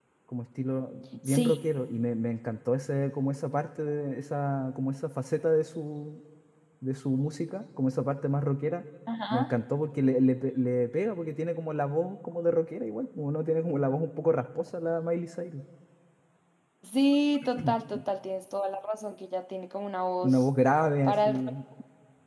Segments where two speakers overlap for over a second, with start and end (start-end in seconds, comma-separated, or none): none